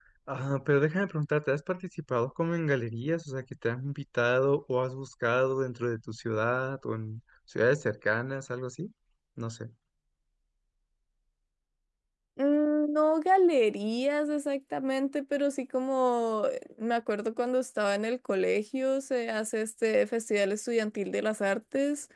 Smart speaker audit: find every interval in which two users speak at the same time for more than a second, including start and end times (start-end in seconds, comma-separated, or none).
none